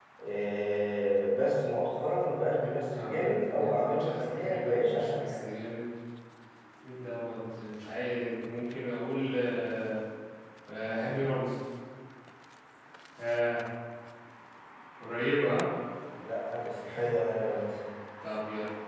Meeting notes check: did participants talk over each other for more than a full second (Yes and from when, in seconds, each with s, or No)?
Yes, from 2.9 s